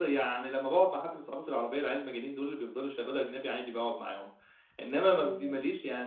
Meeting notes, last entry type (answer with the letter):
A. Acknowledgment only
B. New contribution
A